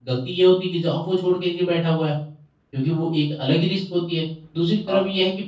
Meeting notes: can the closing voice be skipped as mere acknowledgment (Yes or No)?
Yes